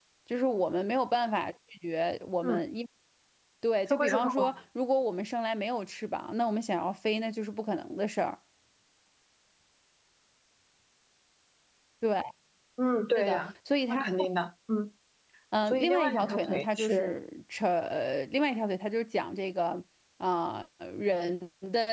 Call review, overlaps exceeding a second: present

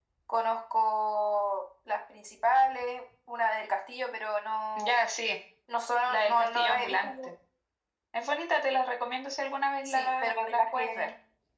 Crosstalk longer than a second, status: present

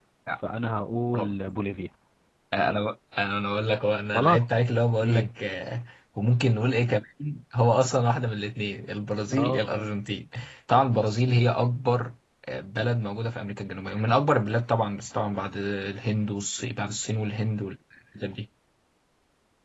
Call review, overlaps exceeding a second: none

